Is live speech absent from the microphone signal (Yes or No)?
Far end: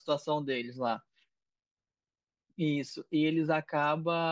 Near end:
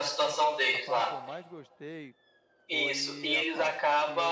No